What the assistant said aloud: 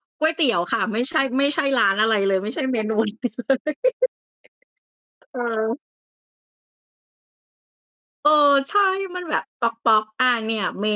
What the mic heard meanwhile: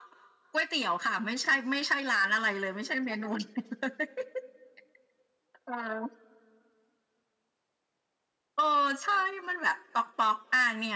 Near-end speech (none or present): none